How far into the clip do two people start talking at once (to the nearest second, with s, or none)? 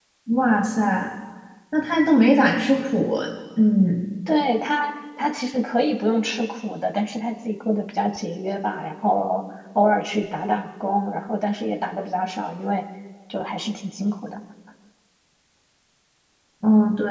none